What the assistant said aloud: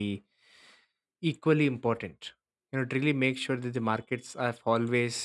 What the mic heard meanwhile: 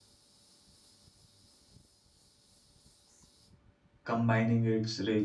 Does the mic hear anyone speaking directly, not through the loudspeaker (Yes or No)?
Yes